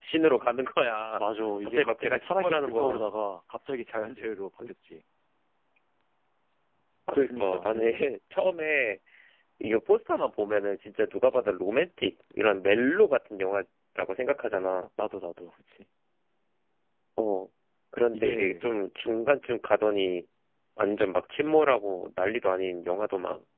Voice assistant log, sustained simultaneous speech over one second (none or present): present